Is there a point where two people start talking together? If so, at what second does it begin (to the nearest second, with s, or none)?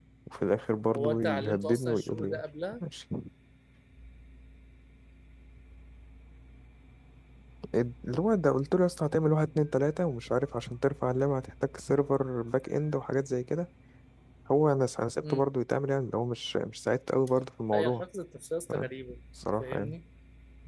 1 s